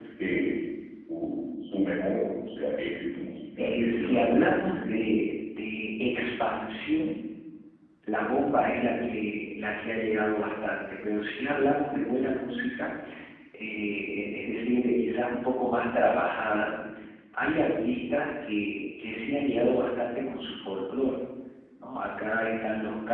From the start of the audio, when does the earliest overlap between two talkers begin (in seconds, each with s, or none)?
3.6 s